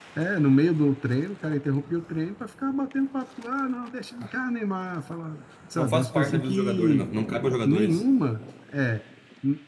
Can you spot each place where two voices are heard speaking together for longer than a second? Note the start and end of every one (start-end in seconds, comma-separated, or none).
5.8-7.1